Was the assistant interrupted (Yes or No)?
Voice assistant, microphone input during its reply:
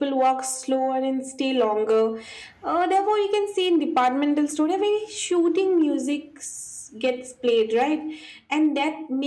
No